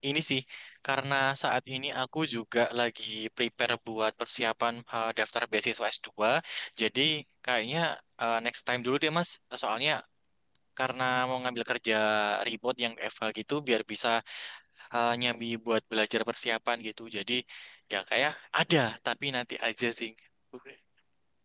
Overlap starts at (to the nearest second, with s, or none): none